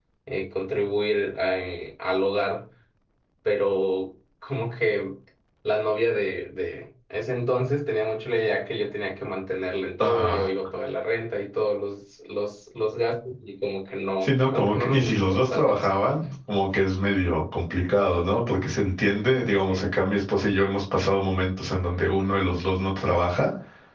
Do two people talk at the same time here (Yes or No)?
Yes